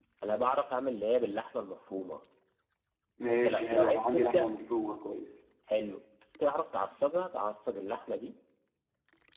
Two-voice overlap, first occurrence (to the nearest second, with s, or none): 3 s